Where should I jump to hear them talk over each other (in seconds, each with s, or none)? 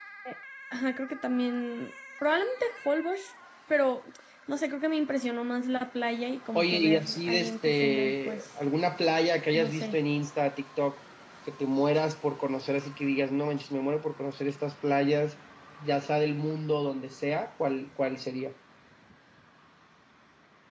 6.6 s